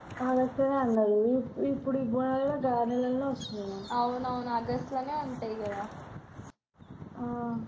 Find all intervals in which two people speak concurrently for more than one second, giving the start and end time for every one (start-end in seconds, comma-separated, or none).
none